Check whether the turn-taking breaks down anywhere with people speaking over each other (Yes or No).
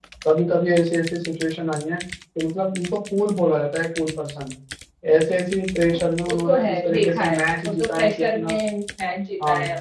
Yes